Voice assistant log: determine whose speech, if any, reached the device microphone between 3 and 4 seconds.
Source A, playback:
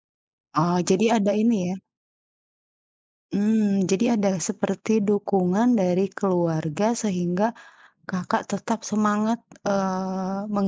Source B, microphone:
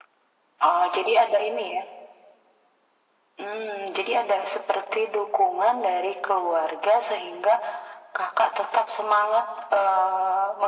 echo only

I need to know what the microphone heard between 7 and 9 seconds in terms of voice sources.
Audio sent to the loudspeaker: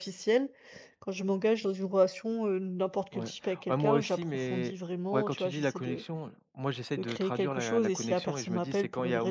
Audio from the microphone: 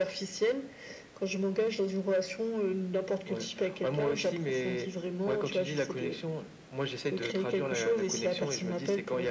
echo only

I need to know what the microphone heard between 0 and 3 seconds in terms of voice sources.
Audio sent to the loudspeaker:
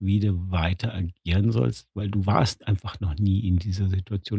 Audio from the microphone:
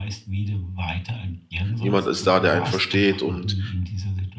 both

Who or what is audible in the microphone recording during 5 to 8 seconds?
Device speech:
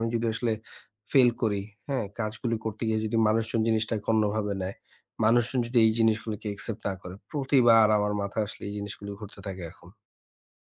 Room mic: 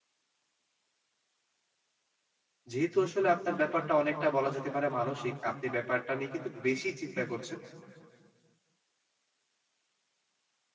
user only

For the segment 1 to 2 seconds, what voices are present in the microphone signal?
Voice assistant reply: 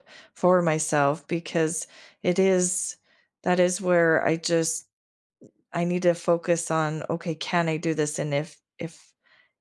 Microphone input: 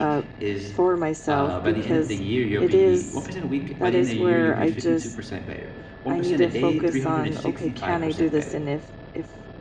both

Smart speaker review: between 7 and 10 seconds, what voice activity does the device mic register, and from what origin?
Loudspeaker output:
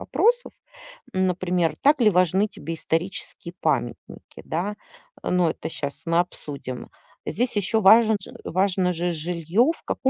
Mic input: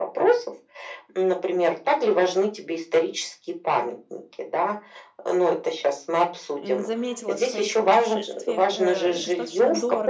both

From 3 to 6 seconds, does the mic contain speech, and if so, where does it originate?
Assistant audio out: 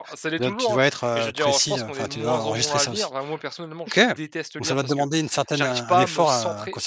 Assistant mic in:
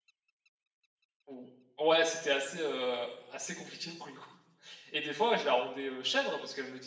user only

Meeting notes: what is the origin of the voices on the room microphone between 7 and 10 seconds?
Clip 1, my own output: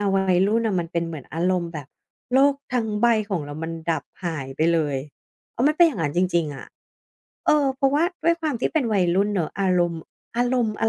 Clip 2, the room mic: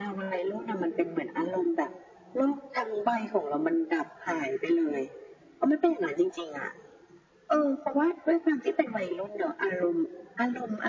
echo only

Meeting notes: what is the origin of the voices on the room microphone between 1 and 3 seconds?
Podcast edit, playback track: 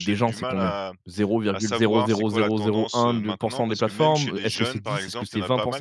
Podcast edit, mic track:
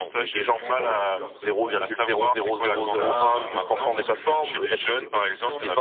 both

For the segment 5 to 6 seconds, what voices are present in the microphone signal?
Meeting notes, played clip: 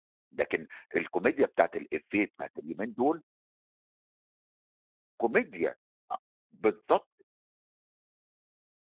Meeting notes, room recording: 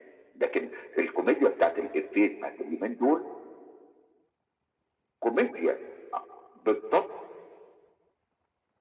echo only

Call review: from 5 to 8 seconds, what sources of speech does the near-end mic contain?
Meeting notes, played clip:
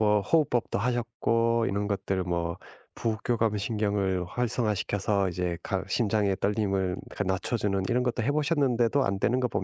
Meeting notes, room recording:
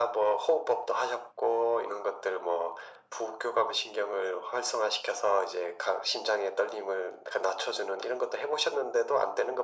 echo only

